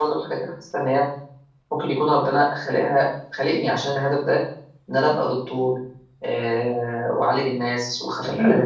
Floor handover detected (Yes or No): No